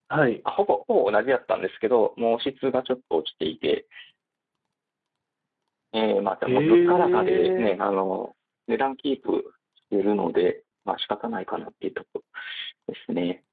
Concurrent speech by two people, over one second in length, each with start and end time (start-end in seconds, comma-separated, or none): 6.5-7.8